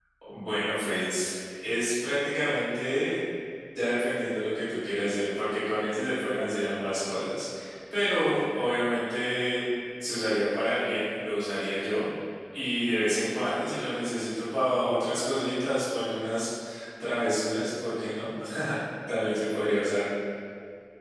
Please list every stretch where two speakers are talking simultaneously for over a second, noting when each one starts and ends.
none

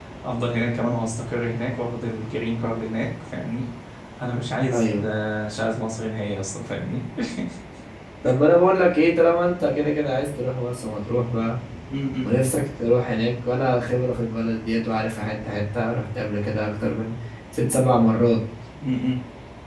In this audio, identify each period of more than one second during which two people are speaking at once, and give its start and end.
none

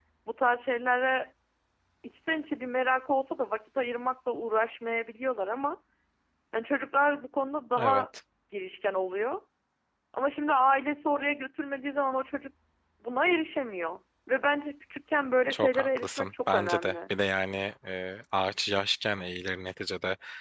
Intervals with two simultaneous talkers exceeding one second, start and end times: 15.5-17.1

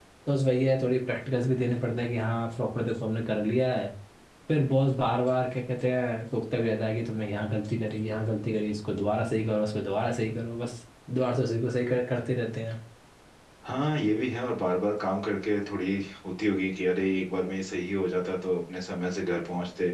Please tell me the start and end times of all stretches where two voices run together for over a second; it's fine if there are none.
none

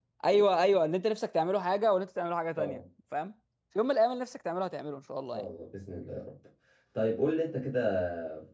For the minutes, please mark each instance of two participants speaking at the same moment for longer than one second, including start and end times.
none

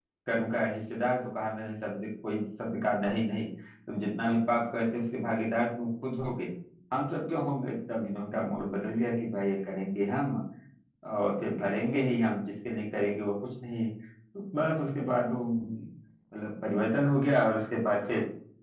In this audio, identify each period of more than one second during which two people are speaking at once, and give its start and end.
none

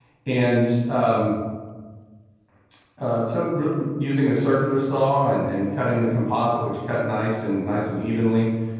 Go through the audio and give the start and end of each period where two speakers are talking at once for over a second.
none

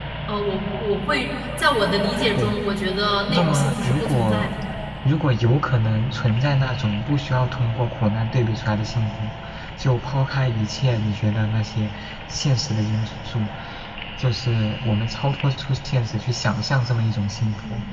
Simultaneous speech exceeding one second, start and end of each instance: 3.3-4.5

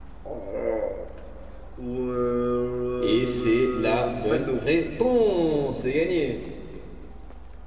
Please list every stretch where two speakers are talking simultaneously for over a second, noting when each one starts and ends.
3.0-4.6

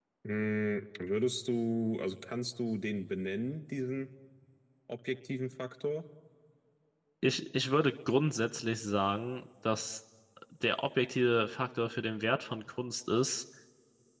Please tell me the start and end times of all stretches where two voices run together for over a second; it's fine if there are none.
none

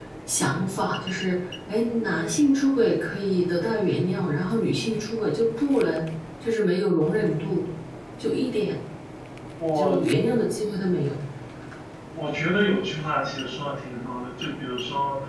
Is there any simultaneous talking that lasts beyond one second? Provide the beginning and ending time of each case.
none

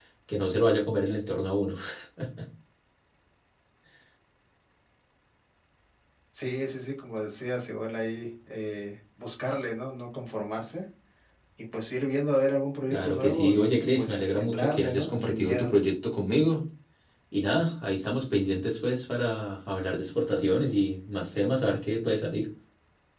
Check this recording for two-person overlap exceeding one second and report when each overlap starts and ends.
12.9-15.7

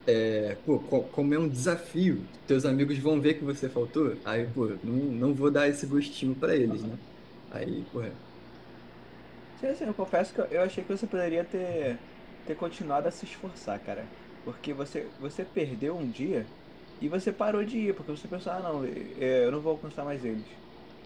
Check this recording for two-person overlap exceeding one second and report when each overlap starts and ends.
none

